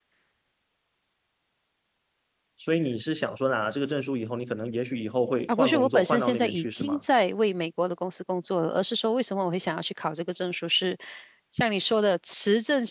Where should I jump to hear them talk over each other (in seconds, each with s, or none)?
5.5 s